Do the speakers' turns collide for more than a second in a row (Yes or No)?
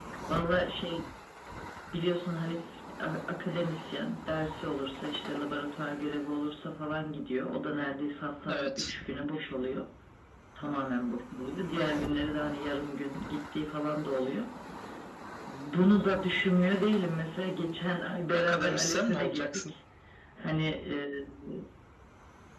Yes